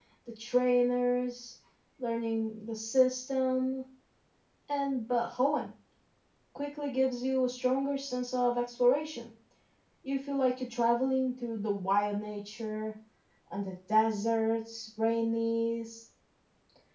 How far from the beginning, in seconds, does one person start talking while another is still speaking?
none

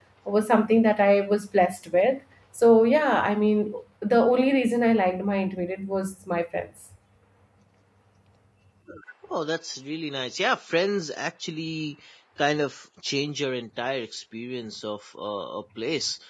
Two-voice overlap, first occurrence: none

